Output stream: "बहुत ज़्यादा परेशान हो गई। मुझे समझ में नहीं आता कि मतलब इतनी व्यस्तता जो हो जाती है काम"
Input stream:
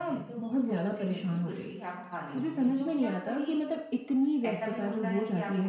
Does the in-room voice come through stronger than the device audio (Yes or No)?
No